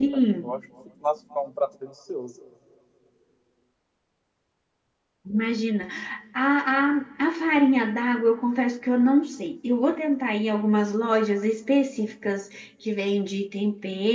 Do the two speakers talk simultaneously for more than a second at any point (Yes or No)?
No